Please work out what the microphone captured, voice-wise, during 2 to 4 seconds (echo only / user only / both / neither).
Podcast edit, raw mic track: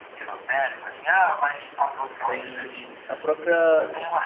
both